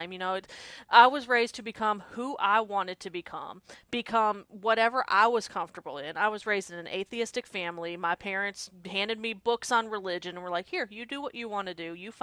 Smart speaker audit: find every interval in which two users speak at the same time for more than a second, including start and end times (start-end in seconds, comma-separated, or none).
none